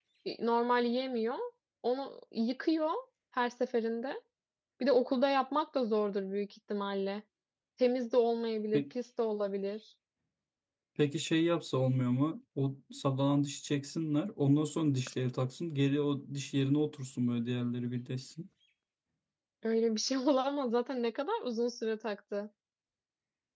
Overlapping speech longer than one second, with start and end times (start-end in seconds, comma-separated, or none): none